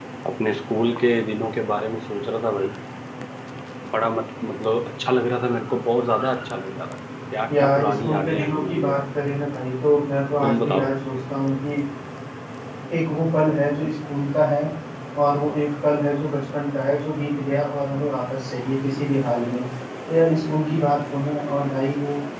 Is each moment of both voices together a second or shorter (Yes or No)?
No